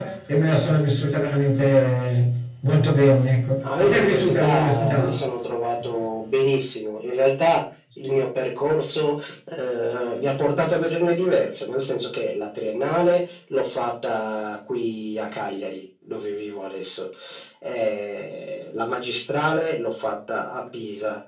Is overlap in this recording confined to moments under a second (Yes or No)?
No